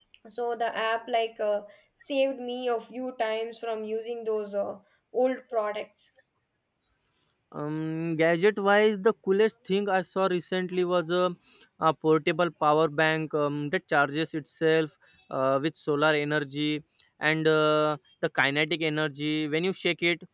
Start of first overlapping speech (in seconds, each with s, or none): none